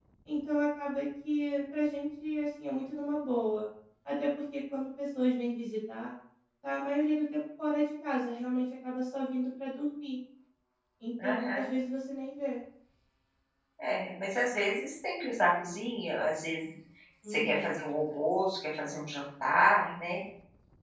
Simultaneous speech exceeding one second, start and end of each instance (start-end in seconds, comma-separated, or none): none